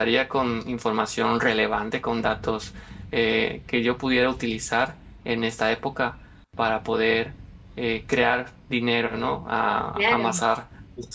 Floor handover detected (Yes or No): No